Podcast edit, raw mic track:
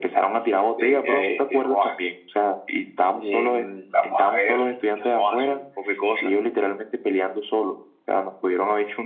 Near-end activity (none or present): none